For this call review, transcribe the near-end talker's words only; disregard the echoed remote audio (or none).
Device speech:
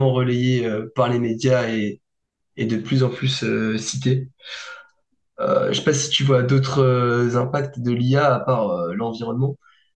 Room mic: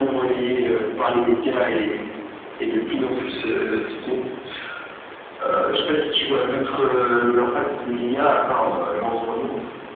none